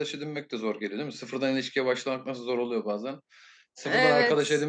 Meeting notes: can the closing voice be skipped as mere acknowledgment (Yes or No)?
Yes